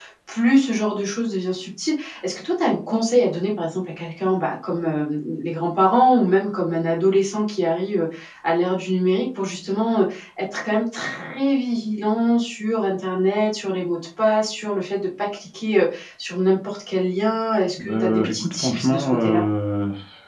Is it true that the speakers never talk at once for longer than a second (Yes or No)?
No